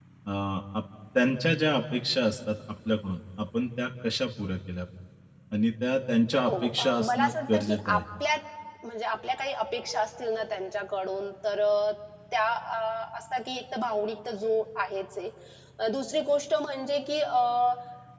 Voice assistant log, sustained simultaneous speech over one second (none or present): present